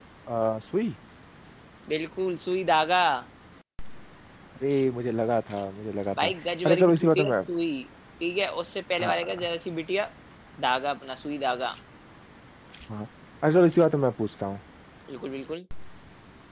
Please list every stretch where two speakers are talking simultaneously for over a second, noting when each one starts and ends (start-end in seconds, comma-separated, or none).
6.2-7.4